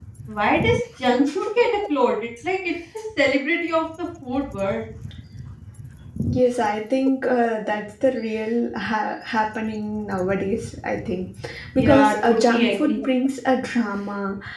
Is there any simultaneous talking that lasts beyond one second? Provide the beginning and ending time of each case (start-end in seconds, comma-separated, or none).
11.8-13.0